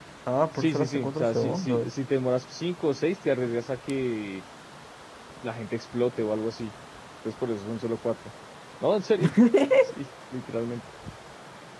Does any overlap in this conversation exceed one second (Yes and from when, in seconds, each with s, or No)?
Yes, from 0.6 s